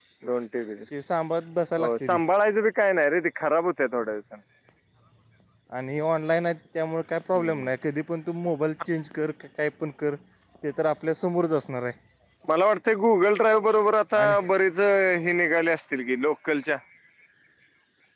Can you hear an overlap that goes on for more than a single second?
No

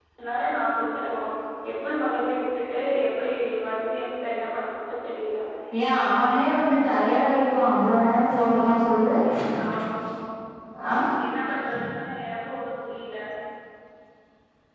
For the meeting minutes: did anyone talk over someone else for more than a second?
No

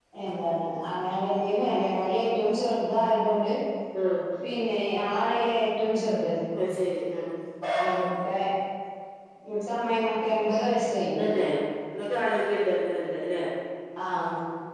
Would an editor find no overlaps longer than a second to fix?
Yes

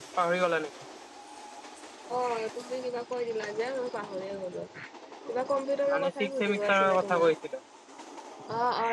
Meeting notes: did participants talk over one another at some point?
Yes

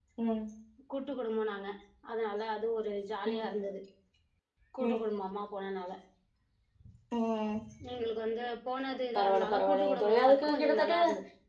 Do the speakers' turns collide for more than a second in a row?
Yes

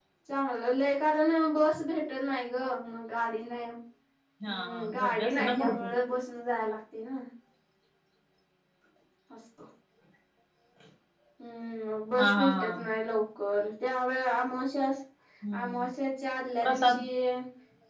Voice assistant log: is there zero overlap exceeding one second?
No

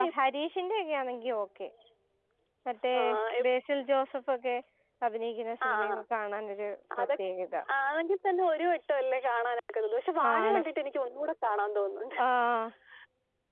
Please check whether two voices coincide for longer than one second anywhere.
No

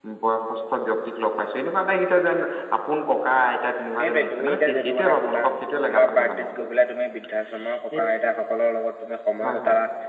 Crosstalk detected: Yes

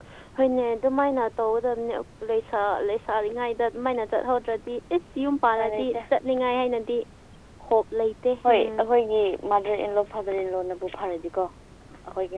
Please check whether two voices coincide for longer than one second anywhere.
No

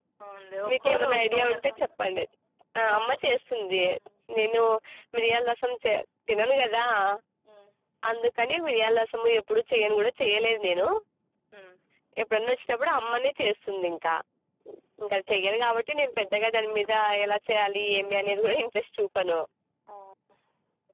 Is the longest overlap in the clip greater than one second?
Yes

